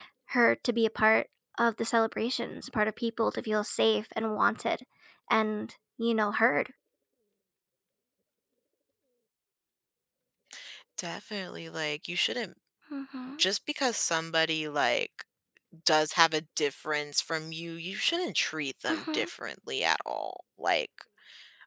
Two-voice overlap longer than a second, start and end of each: none

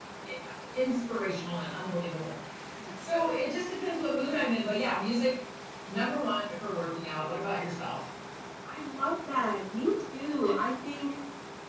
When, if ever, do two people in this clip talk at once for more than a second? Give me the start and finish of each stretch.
none

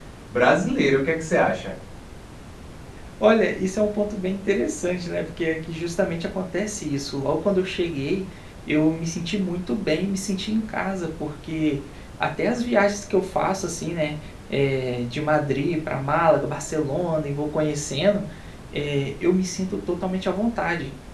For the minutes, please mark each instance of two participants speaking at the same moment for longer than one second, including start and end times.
none

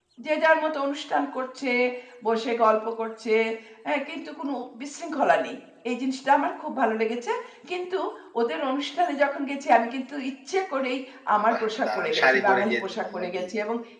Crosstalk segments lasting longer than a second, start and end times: 11.5-13.4

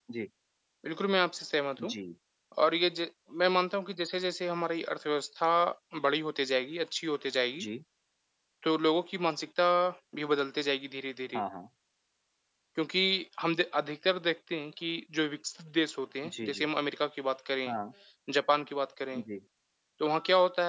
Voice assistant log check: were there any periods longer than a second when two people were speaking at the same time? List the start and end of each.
none

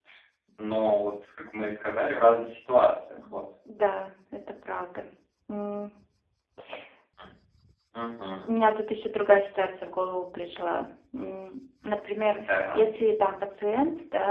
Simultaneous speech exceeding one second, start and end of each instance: none

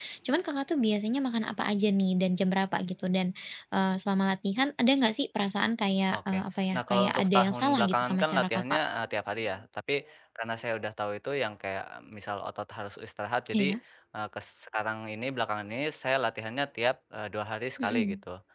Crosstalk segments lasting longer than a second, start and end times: 6.7-8.8

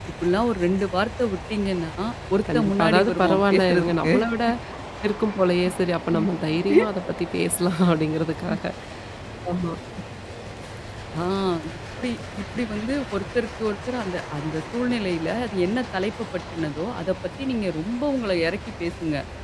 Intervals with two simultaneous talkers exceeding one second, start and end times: 2.5-4.1

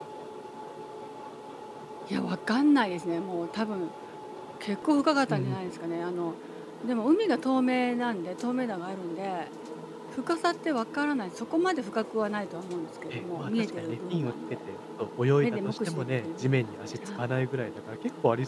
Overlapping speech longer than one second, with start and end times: 13.1-14.3, 15.4-17.2

